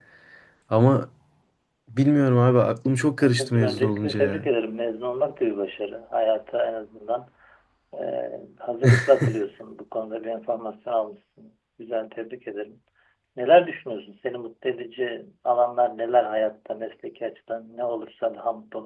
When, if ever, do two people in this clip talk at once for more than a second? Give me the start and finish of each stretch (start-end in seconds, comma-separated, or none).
3.2-4.4